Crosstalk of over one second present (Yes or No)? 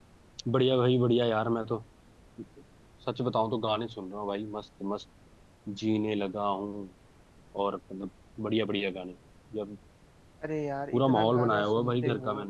Yes